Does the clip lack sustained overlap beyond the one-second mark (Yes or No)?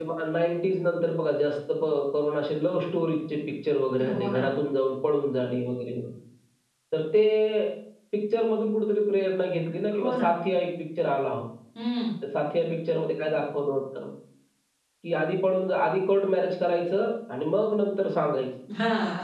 Yes